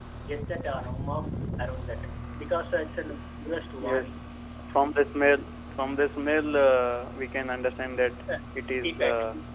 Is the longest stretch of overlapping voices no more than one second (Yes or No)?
Yes